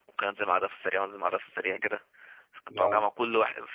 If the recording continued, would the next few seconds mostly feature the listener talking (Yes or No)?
No